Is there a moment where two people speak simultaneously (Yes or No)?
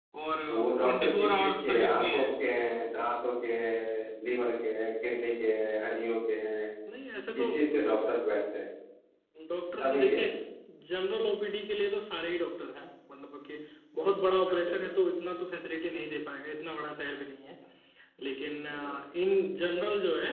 Yes